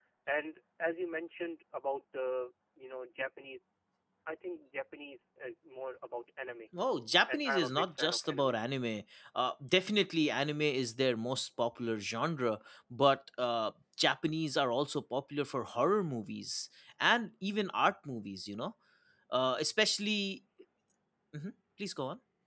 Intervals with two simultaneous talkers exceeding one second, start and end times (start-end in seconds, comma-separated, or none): 7.3-8.6